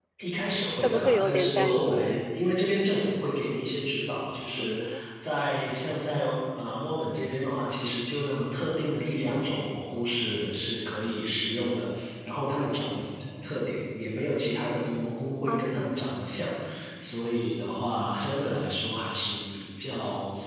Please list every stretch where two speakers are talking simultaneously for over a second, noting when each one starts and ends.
0.8-2.1

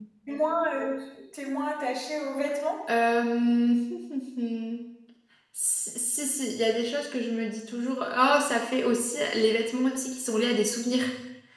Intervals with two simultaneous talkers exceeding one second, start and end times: none

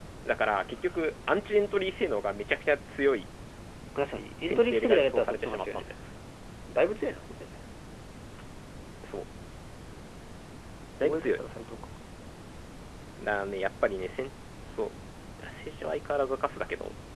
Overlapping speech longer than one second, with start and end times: 4.4-5.8

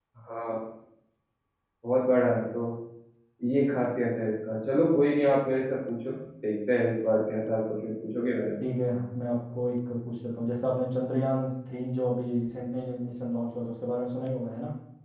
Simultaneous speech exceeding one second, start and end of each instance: none

